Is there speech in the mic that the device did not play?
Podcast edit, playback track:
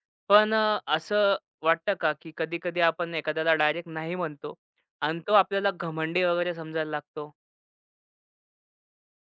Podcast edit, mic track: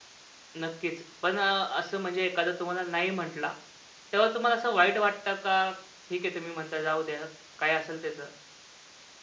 Yes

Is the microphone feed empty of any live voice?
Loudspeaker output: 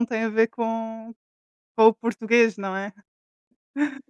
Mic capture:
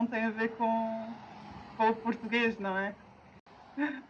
Yes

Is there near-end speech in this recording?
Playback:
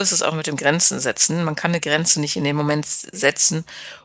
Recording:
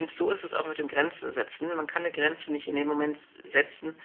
No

